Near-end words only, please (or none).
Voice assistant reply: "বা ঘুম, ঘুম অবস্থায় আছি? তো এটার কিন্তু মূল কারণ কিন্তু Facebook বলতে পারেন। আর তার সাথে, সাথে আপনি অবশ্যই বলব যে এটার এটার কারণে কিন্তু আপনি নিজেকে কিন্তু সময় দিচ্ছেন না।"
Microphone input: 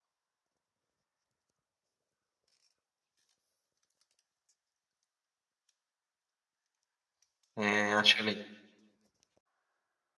হ্যাঁ, আসলেই।